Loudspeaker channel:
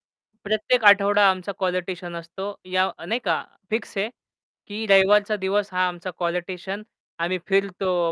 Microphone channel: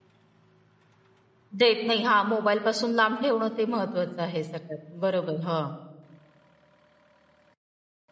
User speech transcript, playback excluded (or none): देत नाही. हां मोबाईलपासून लांब ठेवणं ते महत्वाचं आहे सगळ्यात, बरोबर. हं.